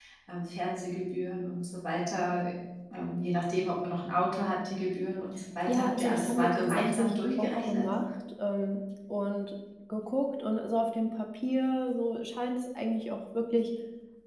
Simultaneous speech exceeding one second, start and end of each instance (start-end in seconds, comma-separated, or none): 5.7-7.8